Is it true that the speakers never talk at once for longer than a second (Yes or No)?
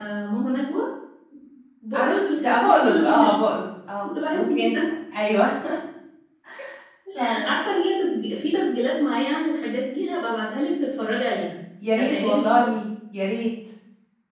No